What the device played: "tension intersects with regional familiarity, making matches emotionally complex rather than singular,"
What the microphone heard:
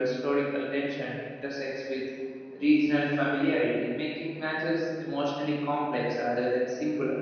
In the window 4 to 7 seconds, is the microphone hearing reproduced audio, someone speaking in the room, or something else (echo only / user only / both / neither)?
echo only